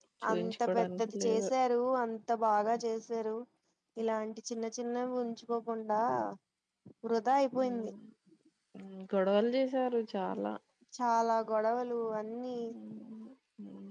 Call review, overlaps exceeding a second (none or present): present